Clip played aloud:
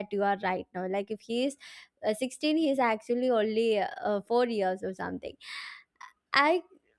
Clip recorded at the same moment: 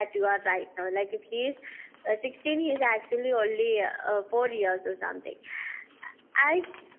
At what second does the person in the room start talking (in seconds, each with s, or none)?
none